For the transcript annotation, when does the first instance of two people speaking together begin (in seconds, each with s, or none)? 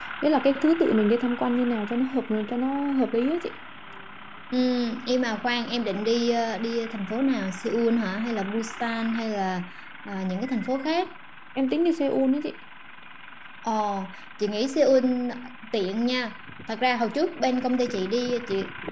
none